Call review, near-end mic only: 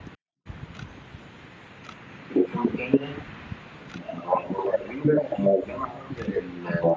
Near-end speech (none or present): none